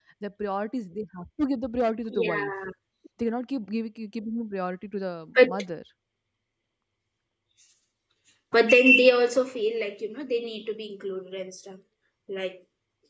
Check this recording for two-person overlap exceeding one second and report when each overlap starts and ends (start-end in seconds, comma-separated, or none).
none